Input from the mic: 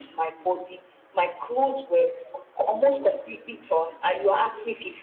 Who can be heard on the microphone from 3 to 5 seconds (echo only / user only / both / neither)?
echo only